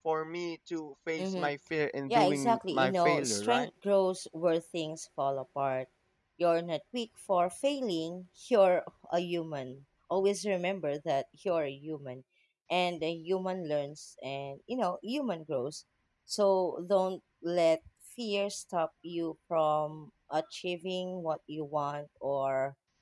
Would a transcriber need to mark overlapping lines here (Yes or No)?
Yes